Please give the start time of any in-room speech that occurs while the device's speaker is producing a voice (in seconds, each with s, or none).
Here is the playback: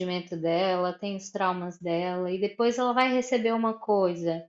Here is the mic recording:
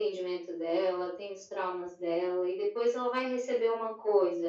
none